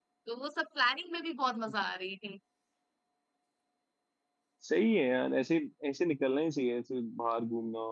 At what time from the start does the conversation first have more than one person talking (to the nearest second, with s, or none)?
none